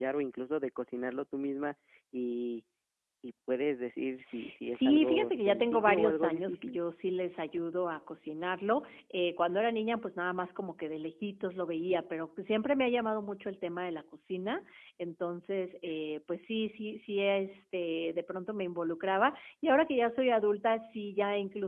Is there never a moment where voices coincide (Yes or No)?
No